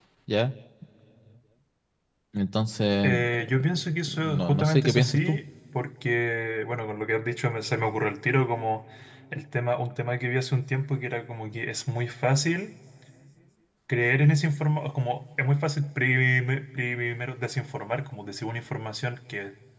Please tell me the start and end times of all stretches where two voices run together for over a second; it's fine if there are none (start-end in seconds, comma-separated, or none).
4.0-5.4